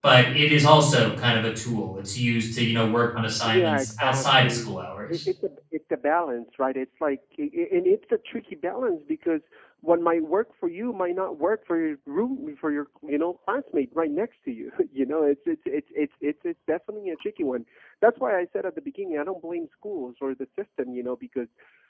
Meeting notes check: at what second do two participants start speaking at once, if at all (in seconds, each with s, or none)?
3.5 s